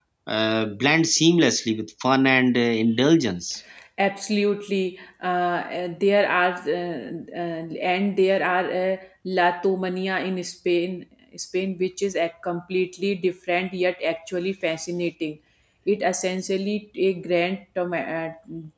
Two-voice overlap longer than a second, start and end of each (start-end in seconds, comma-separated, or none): none